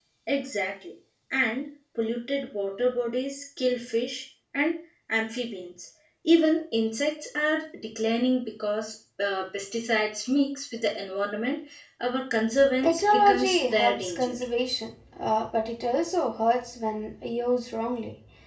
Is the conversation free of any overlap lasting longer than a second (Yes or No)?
No